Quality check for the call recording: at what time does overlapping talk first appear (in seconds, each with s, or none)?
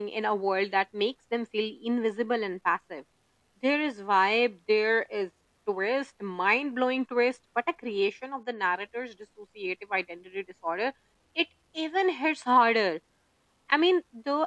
none